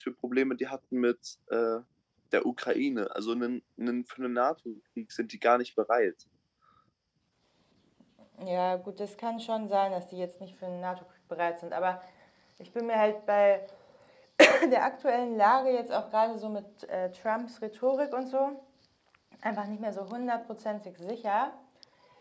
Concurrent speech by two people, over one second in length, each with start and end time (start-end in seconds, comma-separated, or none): none